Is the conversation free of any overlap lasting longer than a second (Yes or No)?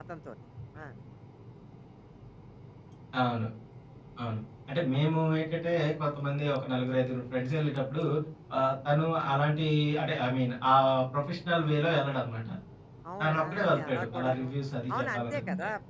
No